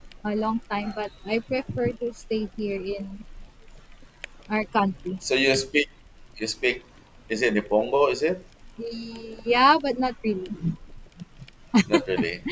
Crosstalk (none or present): none